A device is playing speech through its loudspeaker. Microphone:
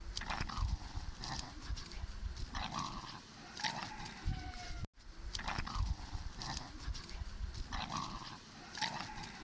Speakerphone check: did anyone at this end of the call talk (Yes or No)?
No